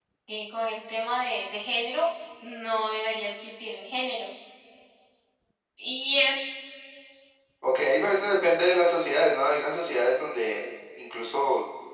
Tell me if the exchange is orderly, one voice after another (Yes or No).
Yes